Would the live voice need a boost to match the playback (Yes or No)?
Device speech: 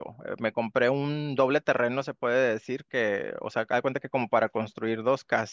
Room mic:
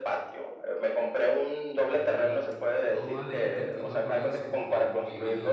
Yes